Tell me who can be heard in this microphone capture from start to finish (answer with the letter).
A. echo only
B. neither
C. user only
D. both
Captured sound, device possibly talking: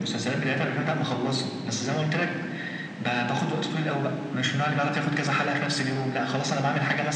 A